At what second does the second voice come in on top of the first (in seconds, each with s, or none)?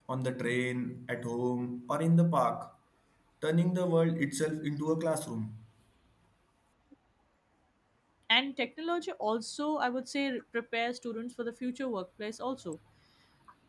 none